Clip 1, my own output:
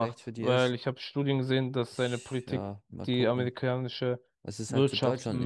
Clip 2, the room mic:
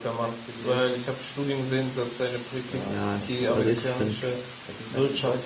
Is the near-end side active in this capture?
Yes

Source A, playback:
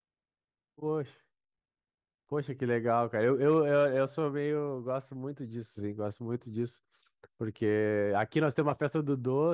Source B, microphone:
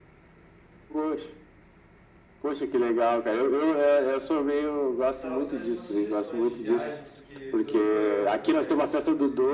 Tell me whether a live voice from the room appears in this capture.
Yes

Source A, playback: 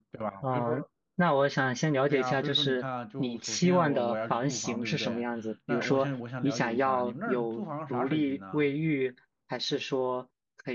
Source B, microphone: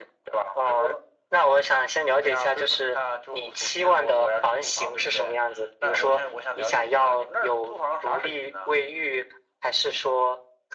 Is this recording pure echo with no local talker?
Yes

